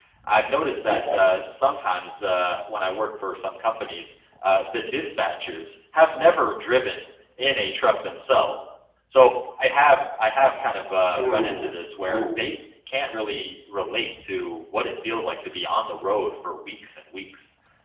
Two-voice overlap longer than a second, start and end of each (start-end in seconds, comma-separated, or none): 11.2-12.5